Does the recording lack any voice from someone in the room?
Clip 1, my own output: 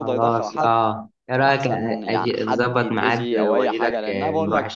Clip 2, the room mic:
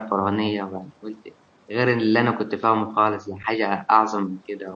No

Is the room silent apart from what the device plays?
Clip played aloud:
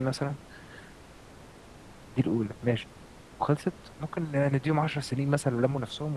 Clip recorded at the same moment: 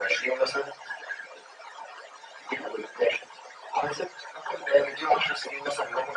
Yes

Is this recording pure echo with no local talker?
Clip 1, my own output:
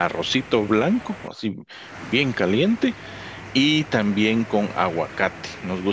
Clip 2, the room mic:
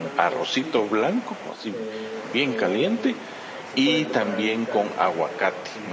No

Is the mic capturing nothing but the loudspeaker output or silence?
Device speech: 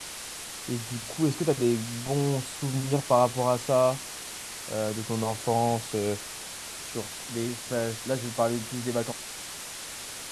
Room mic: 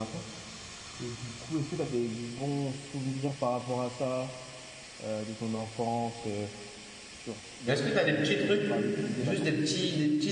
No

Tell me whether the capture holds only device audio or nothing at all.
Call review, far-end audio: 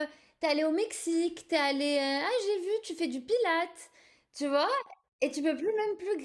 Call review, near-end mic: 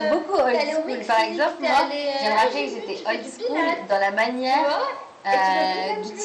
No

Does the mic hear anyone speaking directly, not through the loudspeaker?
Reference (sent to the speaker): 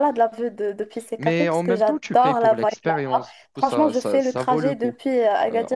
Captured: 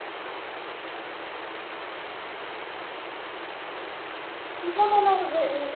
Yes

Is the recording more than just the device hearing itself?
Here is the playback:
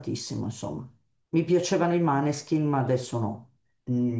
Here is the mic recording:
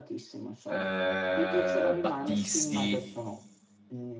Yes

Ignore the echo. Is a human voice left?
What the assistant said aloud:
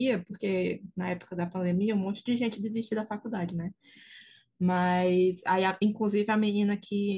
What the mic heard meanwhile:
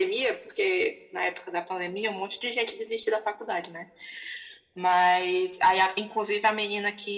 No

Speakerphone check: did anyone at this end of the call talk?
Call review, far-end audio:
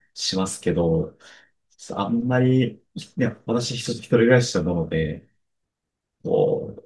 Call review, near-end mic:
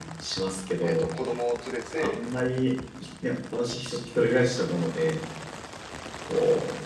Yes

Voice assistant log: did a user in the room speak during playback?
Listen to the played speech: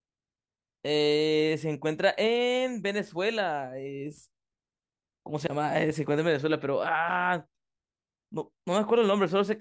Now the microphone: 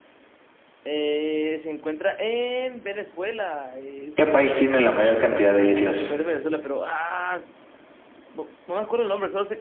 Yes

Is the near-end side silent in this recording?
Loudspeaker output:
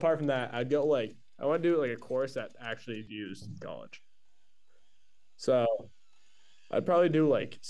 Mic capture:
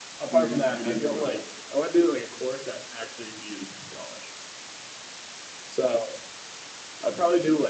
No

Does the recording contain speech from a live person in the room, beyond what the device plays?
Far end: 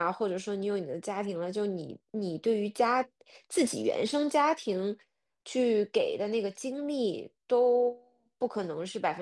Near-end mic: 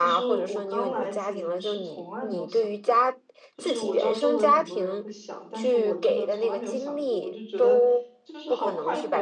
Yes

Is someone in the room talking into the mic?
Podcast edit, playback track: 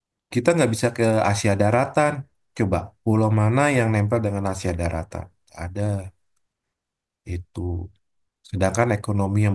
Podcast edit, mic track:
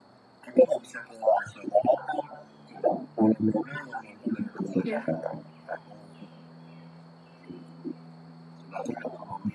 Yes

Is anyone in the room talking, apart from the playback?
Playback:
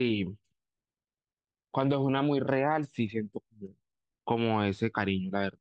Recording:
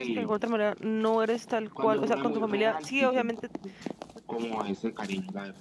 Yes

